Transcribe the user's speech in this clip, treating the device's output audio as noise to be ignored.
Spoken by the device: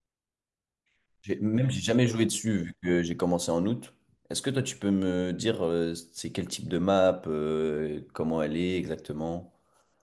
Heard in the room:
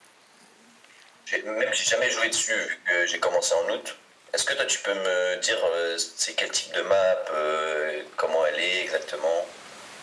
none

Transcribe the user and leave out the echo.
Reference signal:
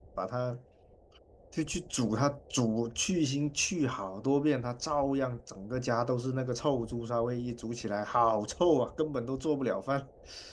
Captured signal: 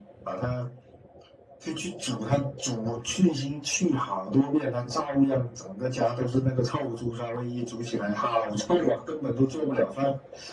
none

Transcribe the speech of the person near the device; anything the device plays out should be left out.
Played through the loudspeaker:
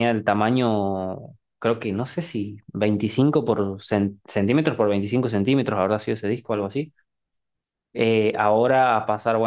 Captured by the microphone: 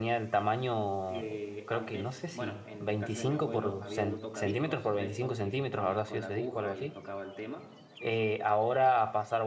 que antes, bueno, en casa de mi abuelo había un tocadiscos de estos que ponías con la aguja y tocaba el tema.

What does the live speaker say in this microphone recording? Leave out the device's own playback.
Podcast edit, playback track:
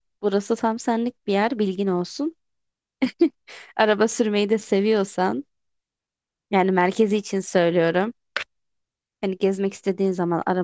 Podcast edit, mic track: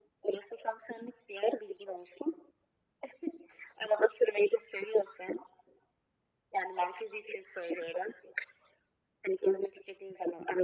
none

